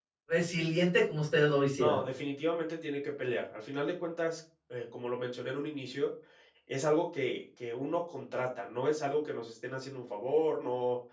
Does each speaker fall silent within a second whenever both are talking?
Yes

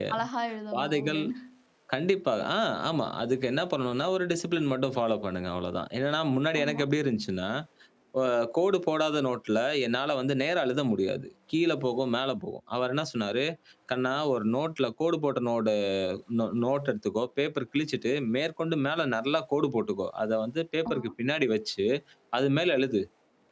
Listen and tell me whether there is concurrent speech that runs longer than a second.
No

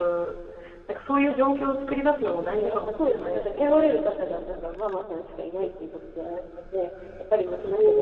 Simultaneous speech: Yes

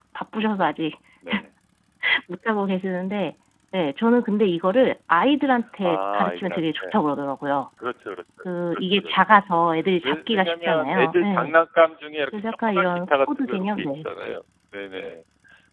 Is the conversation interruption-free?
No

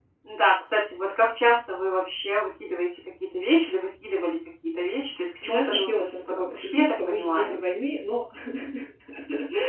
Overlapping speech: Yes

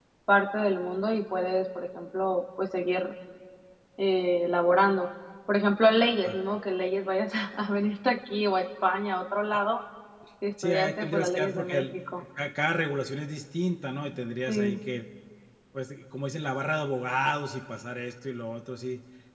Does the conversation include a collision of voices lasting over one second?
Yes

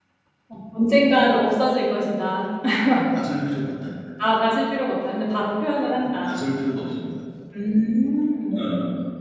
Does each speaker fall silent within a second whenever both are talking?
Yes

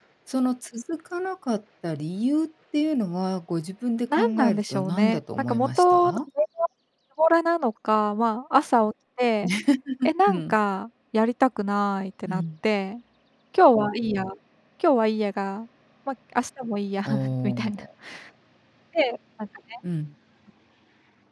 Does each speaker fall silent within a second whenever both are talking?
No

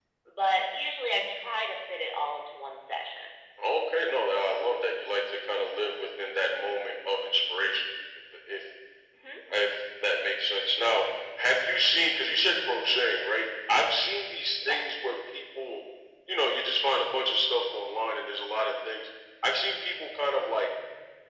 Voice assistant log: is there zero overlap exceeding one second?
Yes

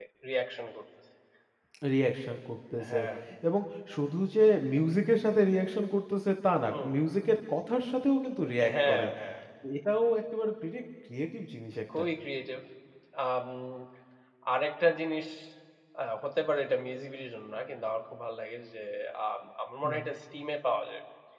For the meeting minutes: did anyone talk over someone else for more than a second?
No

